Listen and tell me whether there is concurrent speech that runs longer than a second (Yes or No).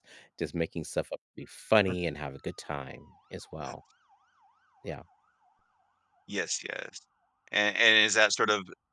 No